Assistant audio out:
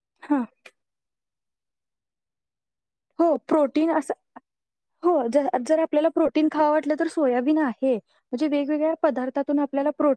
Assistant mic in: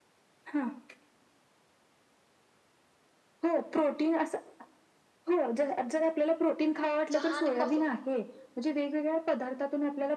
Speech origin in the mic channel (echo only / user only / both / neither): both